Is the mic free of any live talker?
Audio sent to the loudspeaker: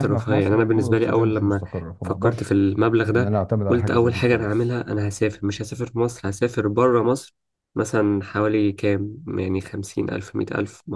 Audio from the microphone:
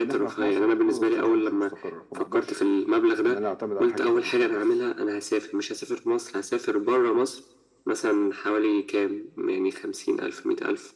Yes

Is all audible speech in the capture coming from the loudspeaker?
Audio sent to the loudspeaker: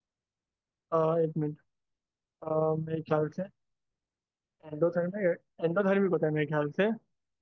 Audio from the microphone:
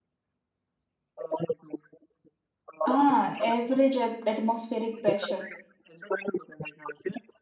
No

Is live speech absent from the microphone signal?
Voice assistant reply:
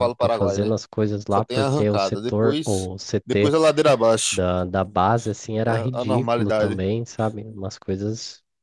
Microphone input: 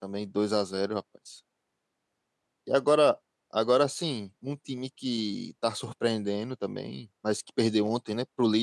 No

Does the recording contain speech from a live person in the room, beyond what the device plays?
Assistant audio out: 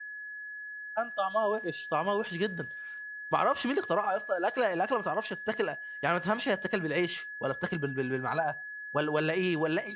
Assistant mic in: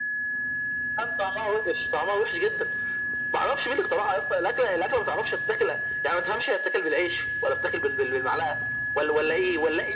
No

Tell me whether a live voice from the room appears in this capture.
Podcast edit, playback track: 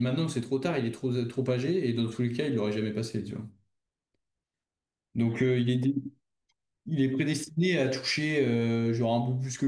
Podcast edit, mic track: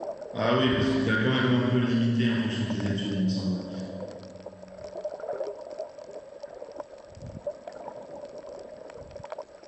Yes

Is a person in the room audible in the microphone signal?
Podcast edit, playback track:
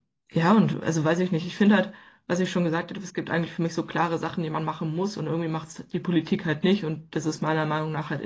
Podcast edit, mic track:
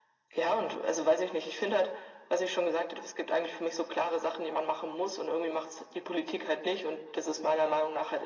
No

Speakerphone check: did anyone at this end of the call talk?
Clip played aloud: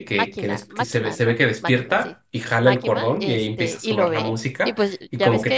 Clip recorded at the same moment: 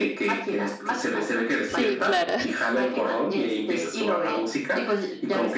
Yes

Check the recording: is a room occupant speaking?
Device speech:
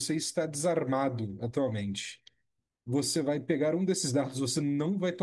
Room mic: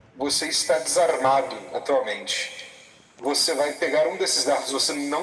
No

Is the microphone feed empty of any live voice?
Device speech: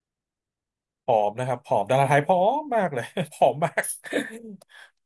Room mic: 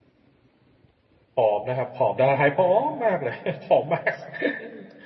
Yes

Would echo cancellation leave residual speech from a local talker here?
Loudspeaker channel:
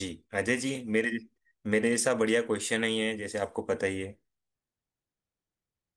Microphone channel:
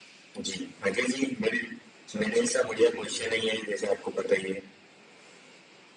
Yes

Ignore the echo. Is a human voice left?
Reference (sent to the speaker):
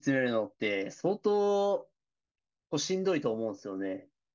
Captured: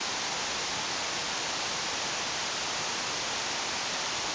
No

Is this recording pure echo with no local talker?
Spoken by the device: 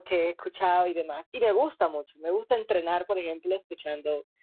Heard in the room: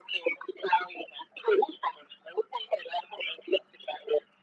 Yes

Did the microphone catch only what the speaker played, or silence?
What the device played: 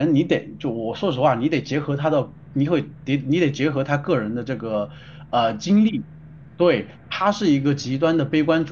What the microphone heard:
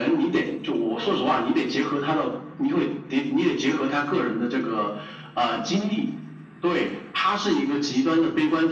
Yes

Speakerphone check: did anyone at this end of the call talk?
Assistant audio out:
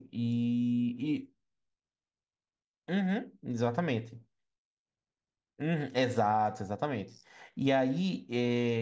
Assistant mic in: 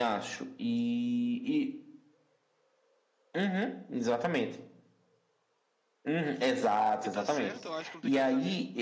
Yes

